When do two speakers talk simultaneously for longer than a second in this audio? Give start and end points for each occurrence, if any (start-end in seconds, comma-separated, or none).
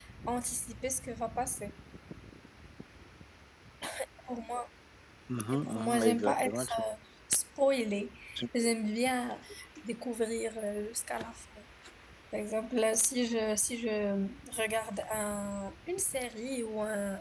5.5-6.8